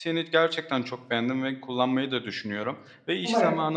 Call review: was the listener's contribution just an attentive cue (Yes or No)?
Yes